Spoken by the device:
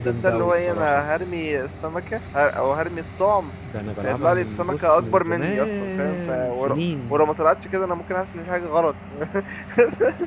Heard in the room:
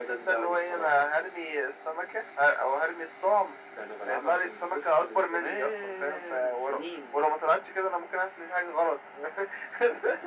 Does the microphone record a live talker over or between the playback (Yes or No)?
No